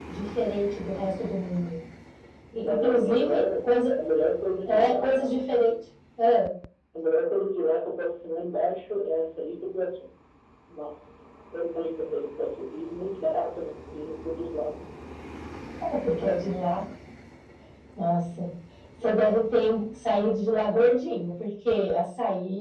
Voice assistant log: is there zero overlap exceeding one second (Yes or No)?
No